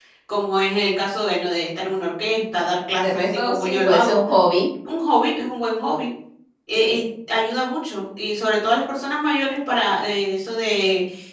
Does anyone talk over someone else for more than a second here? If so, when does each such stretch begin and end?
3.0-4.2

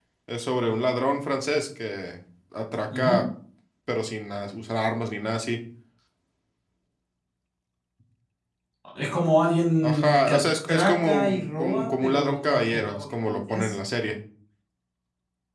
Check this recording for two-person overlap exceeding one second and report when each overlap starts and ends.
9.8-13.7

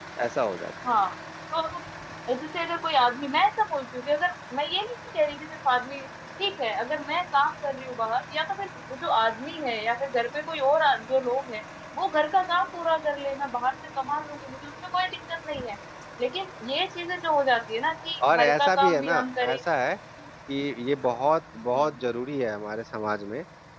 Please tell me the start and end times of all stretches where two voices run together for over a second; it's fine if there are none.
18.3-19.6

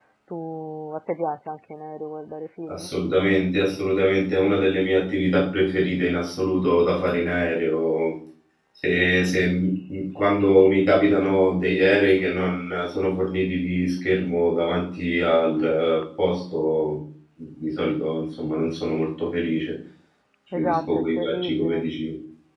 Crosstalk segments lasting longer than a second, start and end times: 20.6-21.9

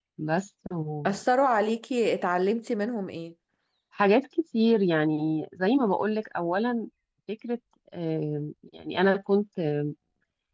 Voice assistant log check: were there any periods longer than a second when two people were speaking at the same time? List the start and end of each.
none

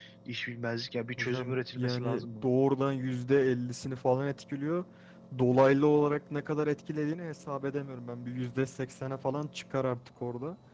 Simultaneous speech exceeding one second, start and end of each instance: 1.2-2.5

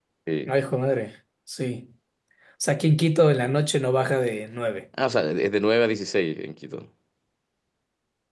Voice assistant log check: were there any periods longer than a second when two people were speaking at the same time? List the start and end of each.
none

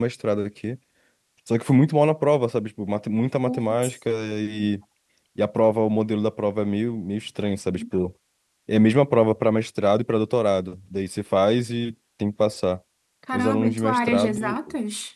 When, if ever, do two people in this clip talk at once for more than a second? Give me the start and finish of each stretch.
13.3-14.6

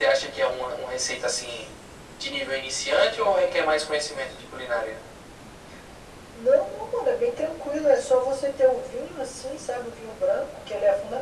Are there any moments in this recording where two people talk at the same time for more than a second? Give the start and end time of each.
none

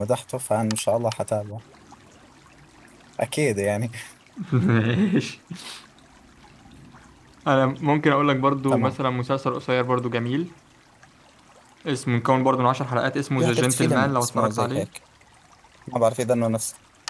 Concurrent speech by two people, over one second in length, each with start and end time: 13.4-14.9

